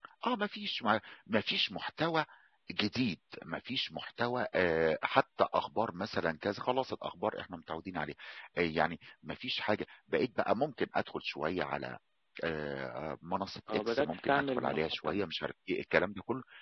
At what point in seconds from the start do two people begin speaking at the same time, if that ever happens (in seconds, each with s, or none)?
13.7 s